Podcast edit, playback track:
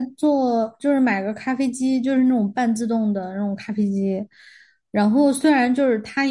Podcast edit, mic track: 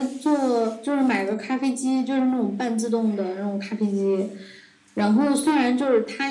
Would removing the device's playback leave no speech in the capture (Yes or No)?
Yes